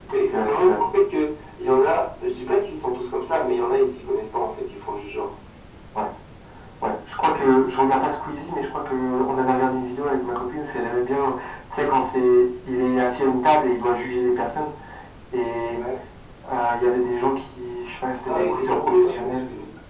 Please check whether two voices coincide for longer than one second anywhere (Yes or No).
Yes